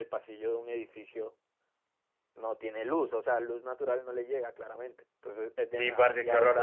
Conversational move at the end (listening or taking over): taking over